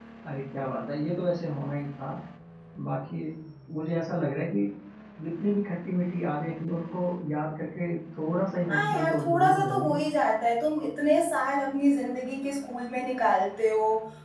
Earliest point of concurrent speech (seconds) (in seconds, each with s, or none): 8.7 s